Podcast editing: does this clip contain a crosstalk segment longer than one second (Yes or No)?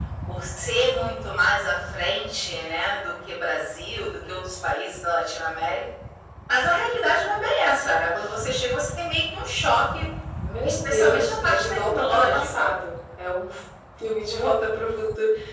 Yes